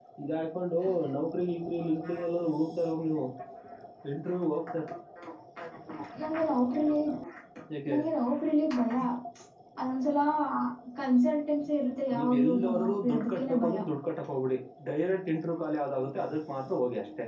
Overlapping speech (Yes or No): Yes